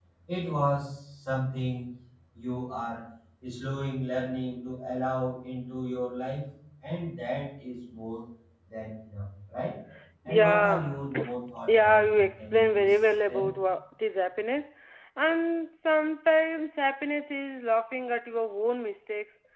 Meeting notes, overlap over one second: present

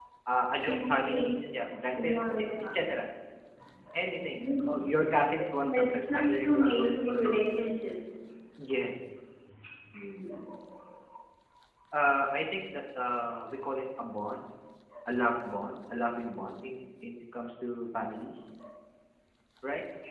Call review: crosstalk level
present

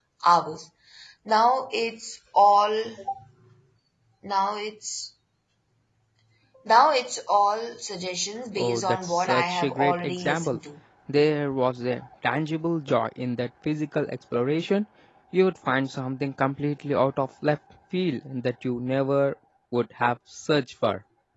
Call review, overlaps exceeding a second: present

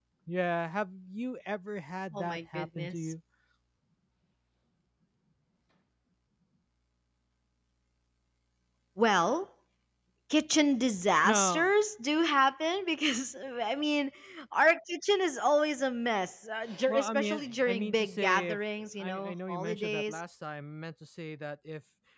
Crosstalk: present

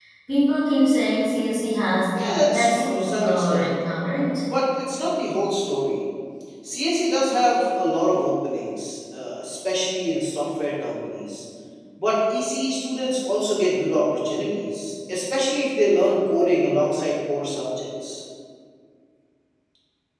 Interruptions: present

